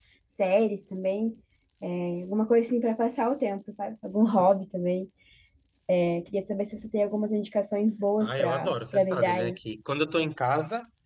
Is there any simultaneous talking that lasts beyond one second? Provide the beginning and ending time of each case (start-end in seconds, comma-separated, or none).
8.2-9.6